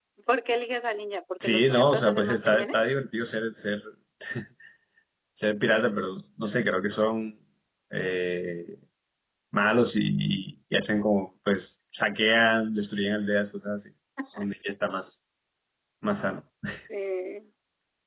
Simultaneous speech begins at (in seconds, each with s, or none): 1.4 s